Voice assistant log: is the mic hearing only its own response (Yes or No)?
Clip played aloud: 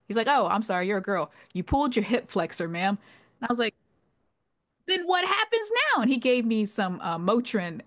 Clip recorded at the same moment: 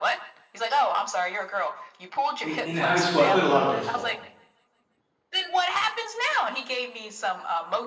No